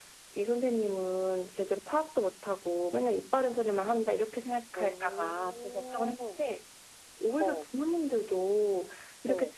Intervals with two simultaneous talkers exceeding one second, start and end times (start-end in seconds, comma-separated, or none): 4.8-6.1